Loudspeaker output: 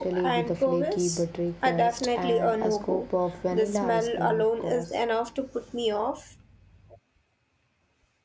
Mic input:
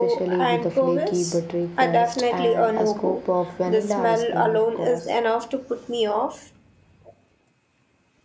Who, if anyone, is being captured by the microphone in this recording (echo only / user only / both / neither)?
echo only